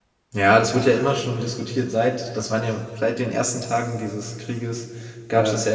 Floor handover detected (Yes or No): No